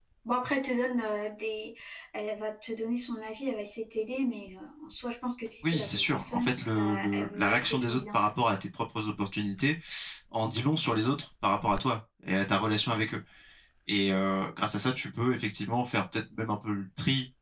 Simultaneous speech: Yes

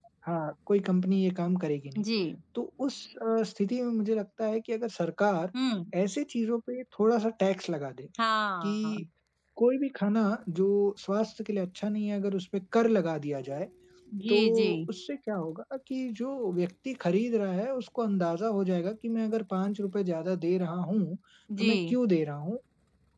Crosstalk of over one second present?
No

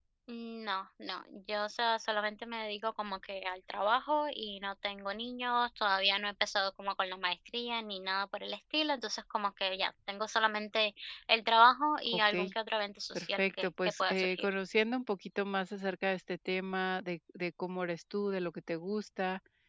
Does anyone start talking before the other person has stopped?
Yes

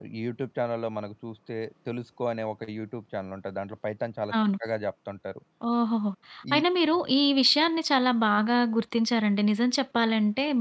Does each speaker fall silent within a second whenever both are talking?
Yes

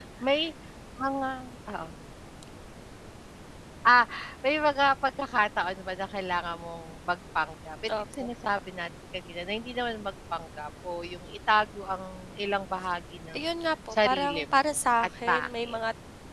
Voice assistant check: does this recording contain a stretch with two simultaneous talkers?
Yes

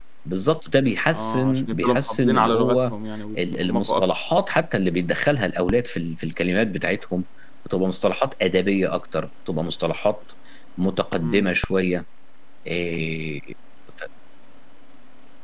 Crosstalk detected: Yes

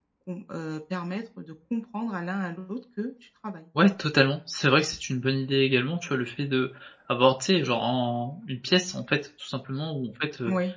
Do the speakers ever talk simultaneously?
No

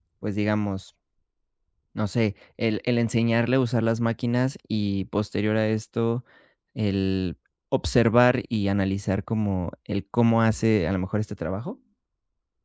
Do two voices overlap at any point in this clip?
No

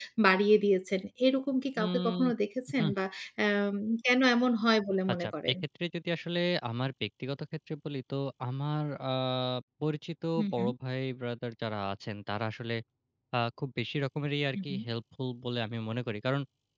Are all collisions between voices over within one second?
Yes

